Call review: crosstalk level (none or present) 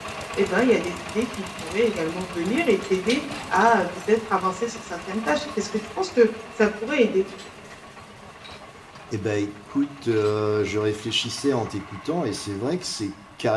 none